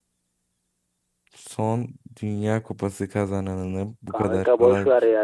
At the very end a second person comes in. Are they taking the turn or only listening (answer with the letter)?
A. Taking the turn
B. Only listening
A